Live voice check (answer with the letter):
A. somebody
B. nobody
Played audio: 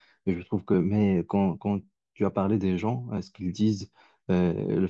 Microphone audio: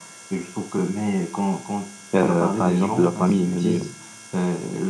A